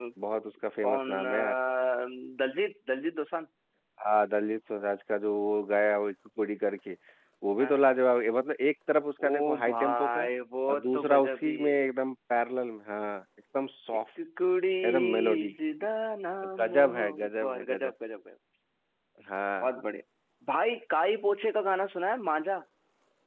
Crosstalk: present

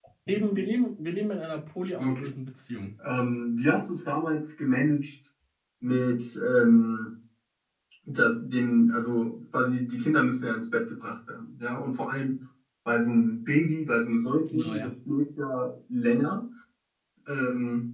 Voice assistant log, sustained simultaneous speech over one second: none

